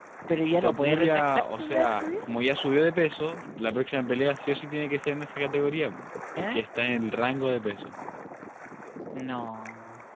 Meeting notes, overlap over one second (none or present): present